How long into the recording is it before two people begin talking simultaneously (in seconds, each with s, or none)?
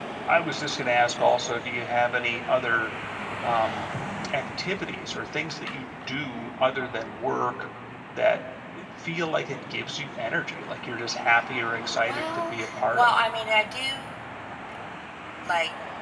11.9 s